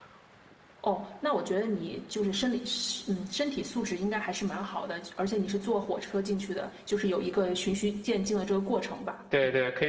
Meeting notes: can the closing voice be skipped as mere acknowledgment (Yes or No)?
No